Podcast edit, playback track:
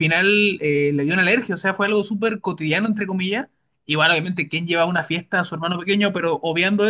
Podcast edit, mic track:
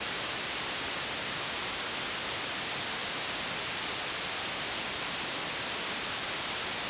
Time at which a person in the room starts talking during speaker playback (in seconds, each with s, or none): none